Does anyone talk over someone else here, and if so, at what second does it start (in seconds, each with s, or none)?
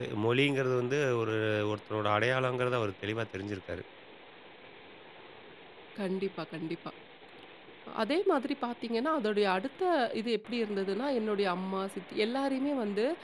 none